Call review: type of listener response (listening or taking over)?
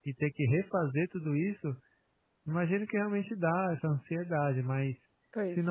listening